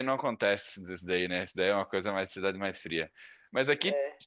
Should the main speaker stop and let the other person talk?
No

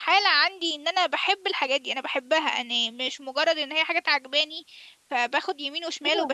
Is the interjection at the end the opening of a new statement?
Yes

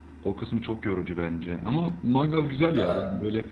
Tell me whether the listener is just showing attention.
Yes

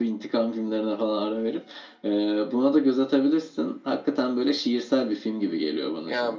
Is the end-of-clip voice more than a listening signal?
Yes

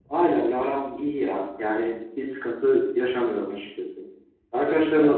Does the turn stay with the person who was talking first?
Yes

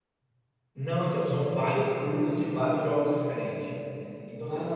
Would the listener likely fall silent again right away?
Yes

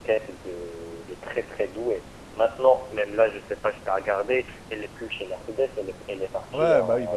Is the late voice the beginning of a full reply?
Yes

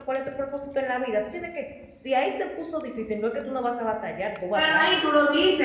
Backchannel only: No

